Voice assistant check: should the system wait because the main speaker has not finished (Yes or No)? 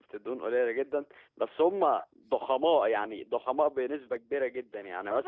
No